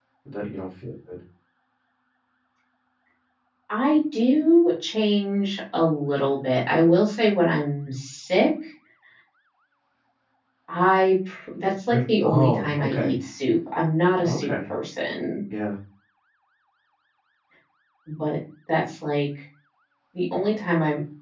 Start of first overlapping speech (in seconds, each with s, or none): 11.9 s